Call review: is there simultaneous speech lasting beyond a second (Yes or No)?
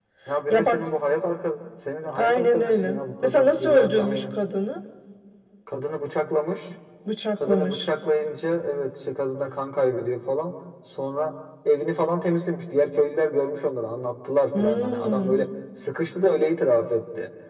Yes